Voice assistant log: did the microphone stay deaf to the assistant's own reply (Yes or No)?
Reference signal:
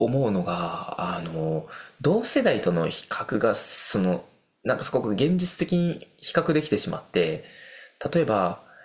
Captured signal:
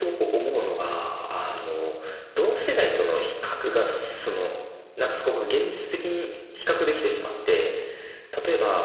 No